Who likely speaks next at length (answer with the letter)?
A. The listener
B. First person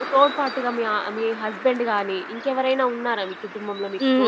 A